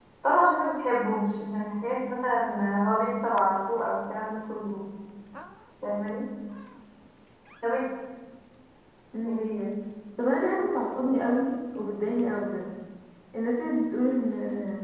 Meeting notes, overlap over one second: none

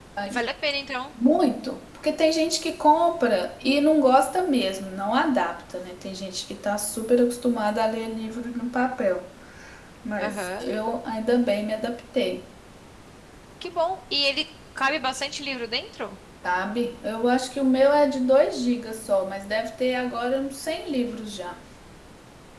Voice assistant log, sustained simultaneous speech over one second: none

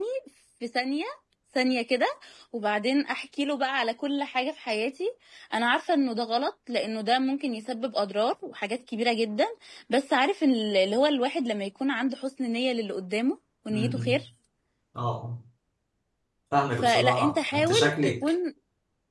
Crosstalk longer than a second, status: present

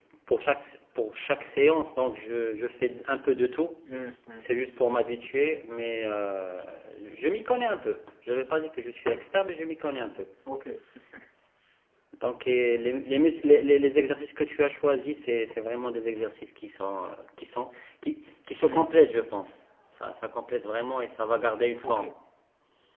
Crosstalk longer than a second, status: none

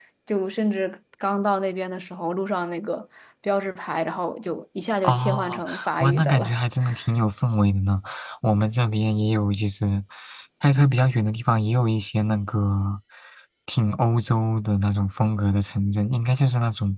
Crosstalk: present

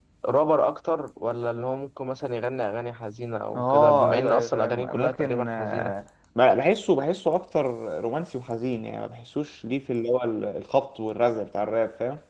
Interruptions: present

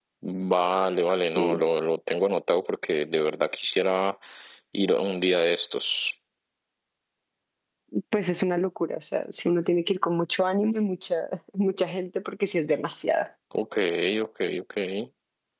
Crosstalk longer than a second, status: none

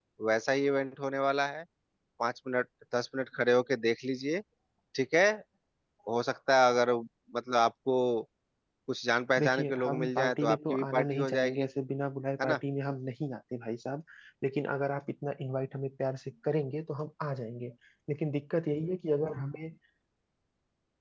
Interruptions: present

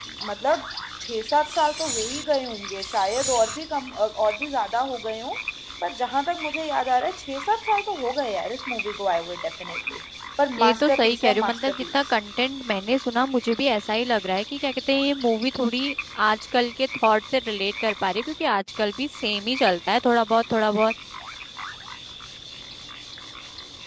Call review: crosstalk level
present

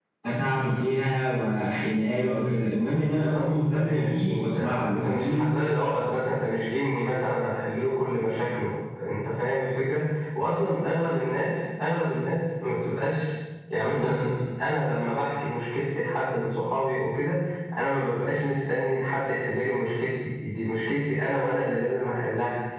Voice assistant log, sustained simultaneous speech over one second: present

